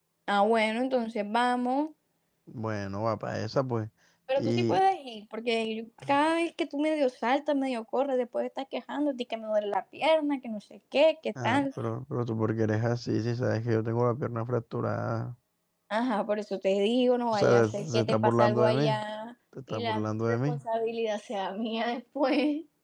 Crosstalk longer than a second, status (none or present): present